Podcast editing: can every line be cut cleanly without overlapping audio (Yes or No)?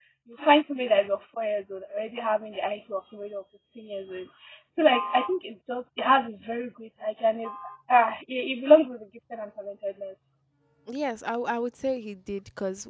Yes